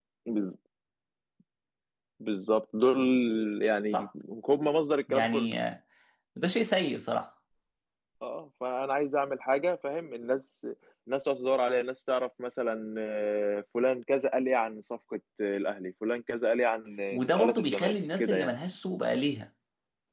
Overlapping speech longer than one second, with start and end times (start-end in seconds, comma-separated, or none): 17.1-18.5